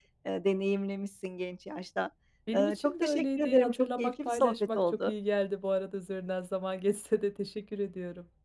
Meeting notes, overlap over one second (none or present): present